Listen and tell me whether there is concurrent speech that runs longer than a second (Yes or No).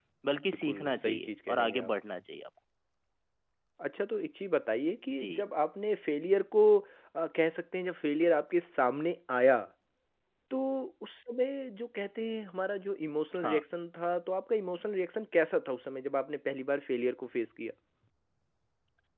Yes